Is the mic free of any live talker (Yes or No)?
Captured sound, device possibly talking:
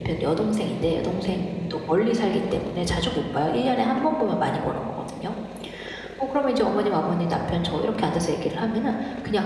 No